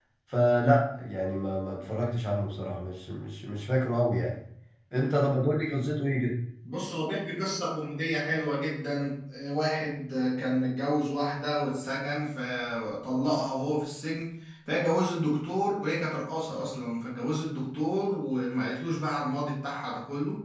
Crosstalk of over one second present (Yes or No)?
No